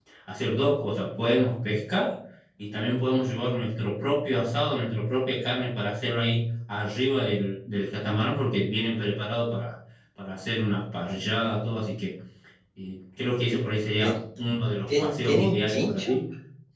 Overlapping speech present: Yes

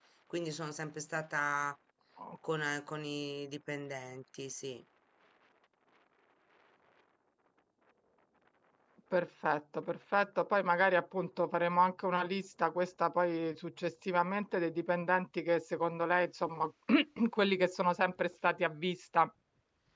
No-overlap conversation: Yes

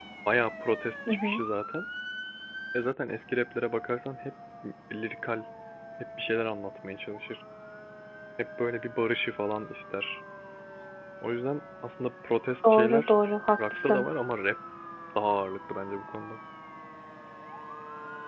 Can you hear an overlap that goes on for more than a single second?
No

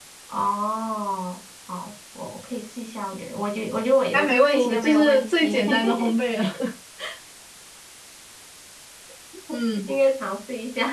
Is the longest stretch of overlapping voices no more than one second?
No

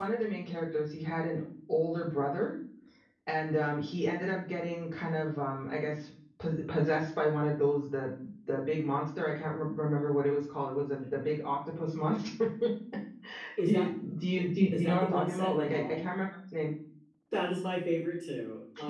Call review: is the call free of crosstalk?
No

